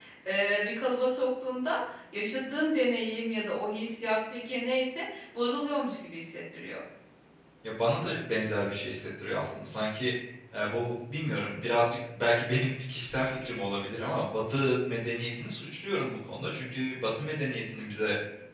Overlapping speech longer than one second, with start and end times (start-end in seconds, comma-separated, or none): none